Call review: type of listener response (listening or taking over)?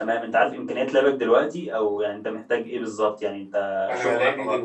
taking over